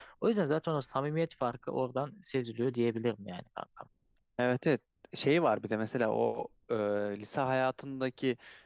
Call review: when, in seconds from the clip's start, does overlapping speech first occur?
none

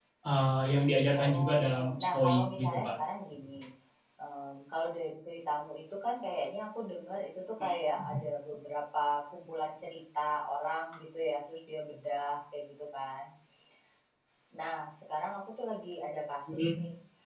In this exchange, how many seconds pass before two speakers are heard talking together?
1.2 s

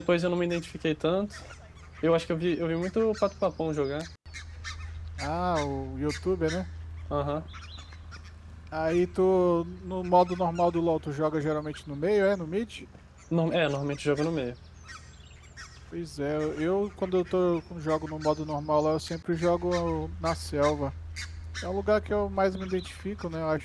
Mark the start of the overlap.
none

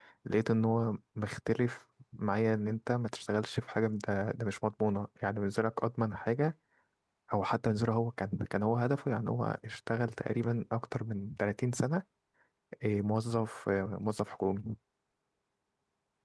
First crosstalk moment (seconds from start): none

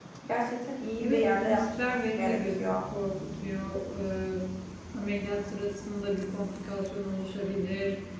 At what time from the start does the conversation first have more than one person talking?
1.0 s

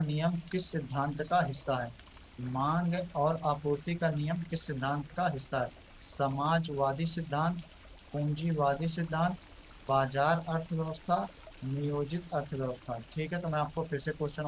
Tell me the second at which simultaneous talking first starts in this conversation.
none

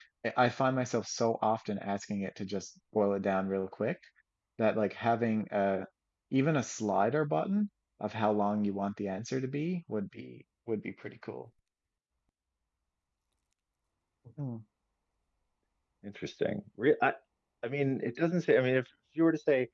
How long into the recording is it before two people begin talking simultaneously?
none

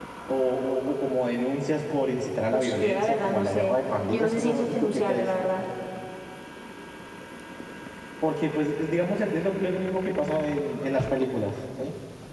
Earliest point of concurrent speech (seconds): 2.5 s

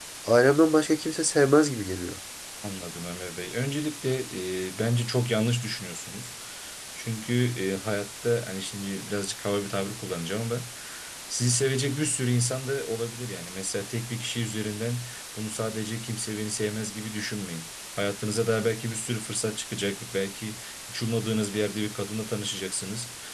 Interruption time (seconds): none

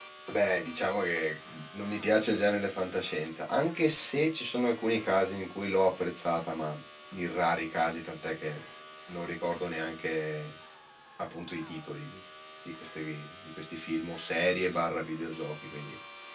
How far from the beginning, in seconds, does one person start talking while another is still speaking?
none

